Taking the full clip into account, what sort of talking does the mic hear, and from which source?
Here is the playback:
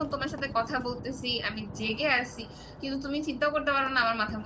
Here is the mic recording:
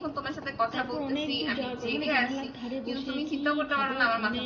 both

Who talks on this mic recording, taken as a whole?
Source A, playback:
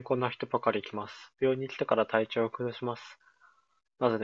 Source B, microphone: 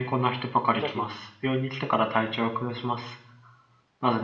both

